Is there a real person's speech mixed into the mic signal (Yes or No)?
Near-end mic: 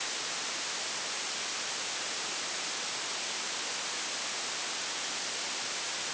No